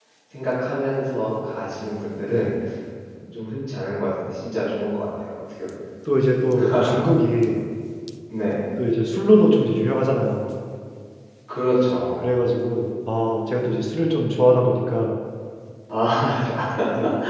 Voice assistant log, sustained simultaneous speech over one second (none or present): none